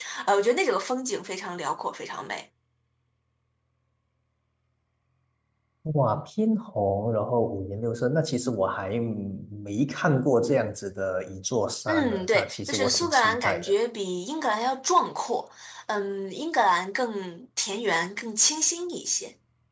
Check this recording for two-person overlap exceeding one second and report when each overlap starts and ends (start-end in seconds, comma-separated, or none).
11.9-13.7